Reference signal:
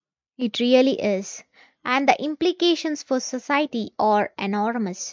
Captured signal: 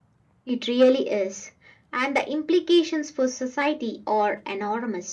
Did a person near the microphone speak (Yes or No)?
No